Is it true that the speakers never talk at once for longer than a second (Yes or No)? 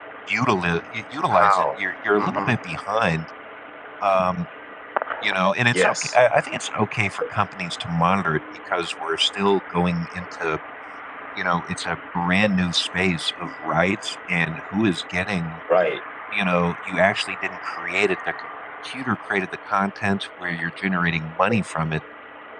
Yes